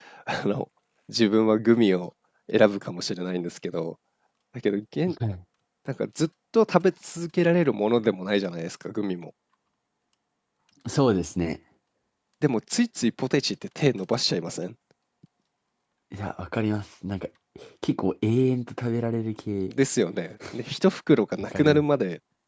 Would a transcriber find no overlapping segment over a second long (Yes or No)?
Yes